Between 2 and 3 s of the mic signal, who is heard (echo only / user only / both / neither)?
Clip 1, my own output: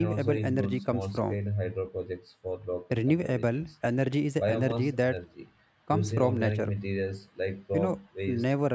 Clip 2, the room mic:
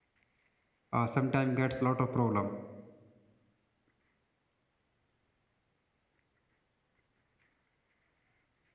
user only